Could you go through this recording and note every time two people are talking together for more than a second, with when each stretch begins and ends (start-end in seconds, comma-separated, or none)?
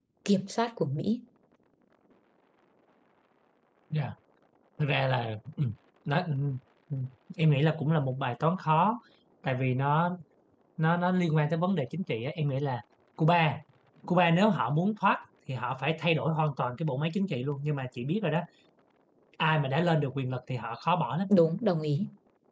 none